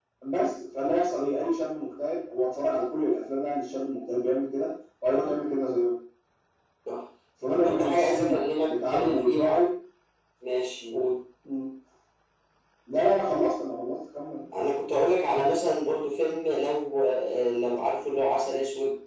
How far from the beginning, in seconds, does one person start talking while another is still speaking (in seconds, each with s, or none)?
7.4 s